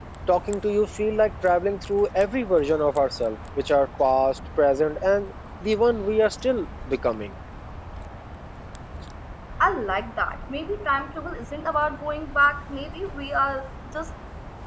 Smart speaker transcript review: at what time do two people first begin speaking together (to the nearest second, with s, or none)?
none